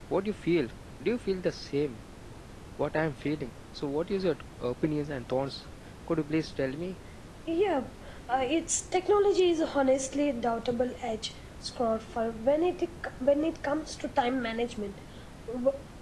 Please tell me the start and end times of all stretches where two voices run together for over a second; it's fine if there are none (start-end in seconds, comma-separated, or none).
none